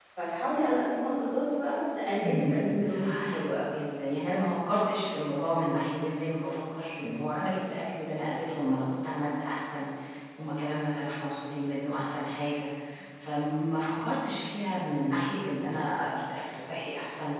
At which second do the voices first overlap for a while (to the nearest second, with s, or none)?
2 s